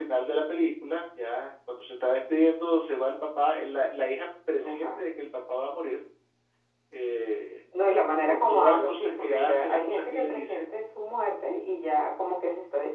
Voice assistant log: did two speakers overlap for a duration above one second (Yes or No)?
Yes